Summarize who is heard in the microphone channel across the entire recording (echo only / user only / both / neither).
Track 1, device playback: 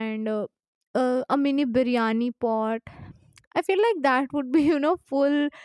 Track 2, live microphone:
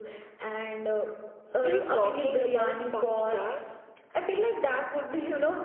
both